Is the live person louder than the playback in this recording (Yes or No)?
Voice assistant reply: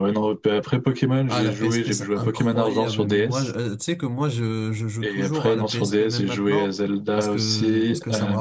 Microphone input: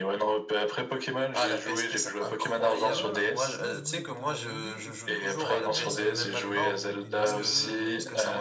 No